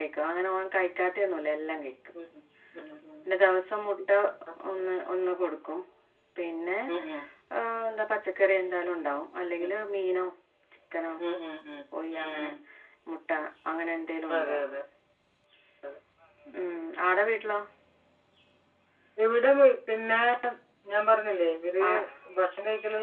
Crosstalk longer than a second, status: none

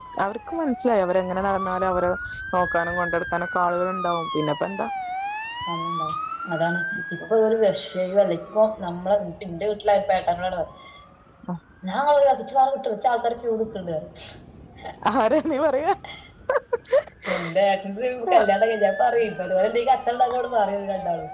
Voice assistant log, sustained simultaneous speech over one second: none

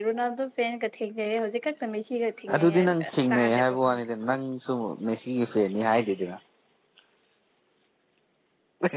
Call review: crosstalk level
present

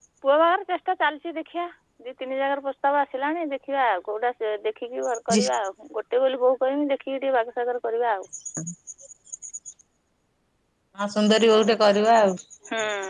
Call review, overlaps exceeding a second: none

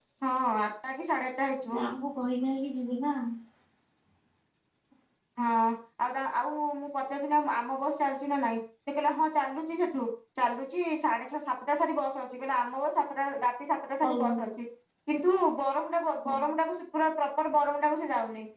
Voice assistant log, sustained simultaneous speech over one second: none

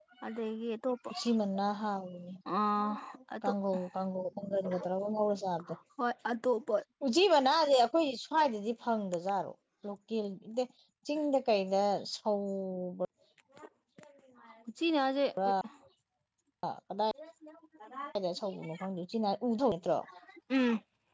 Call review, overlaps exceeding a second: none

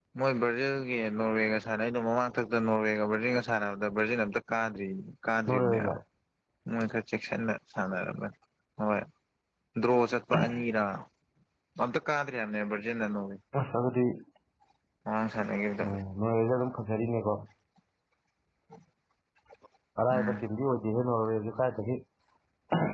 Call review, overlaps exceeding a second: none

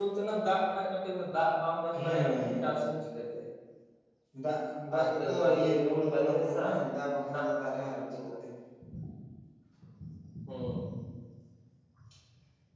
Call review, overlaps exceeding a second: present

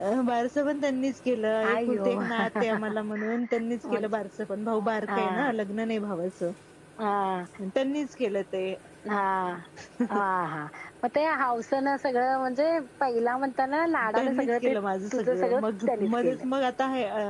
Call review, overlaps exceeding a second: present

